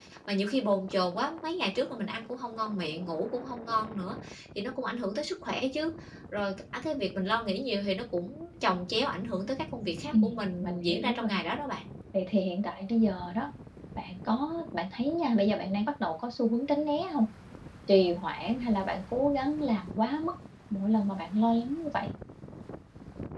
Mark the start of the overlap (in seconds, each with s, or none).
10.1 s